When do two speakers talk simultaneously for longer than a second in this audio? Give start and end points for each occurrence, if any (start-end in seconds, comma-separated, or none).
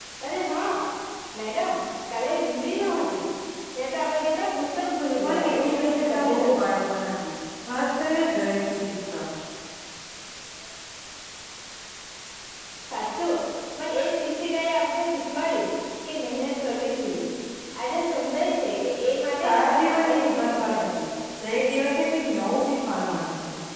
5.2-6.7, 19.4-21.0